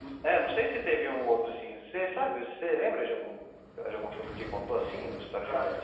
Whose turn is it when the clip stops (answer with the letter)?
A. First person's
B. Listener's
B